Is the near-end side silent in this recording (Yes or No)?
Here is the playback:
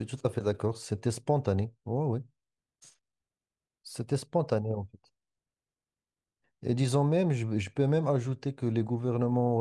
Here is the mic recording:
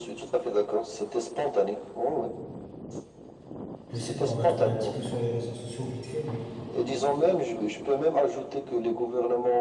No